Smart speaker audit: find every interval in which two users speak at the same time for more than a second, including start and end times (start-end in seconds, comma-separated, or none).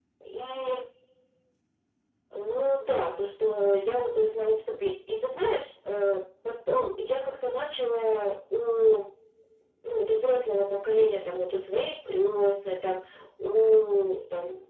none